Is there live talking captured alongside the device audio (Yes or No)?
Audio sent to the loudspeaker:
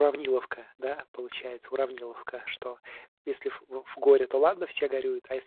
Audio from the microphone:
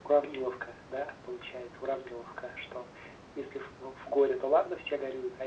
No